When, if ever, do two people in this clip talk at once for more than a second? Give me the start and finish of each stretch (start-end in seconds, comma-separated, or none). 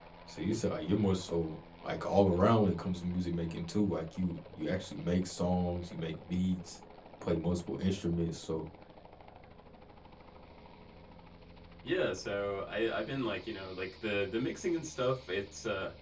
none